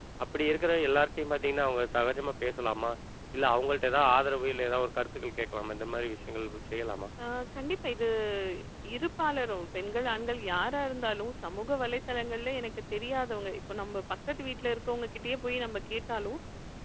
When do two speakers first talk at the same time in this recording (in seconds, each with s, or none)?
none